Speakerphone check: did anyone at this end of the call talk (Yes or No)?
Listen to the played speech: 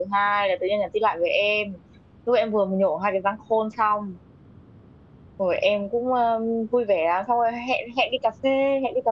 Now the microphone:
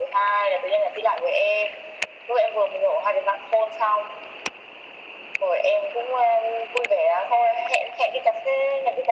No